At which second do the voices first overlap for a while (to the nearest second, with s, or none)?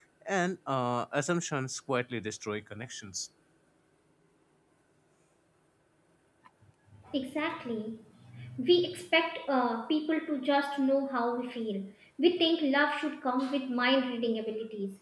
none